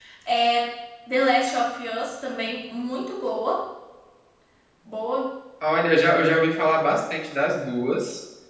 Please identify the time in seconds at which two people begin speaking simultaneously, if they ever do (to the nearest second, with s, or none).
none